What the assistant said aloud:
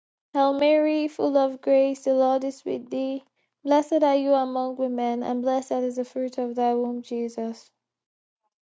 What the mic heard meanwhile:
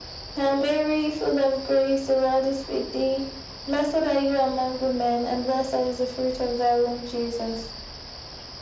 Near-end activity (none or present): none